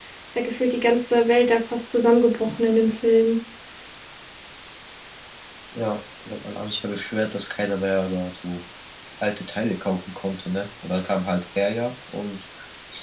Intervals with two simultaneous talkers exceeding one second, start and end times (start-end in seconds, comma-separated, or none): none